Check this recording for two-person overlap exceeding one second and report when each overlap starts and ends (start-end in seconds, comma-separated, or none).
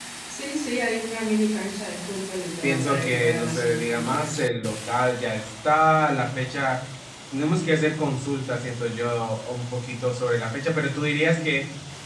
2.6-4.5